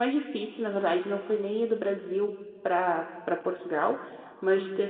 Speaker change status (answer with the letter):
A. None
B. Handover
A